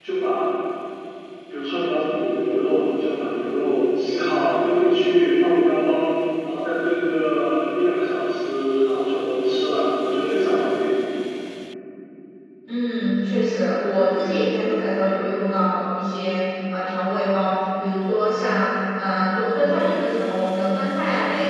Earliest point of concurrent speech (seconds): none

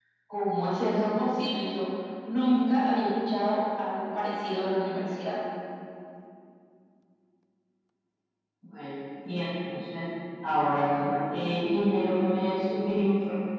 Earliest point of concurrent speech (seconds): none

